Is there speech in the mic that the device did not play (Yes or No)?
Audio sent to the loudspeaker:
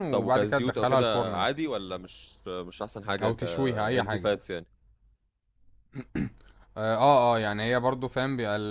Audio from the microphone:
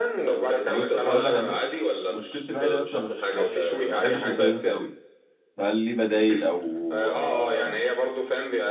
Yes